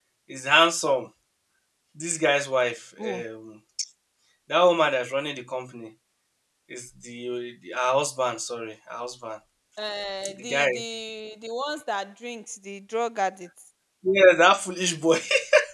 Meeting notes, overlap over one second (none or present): none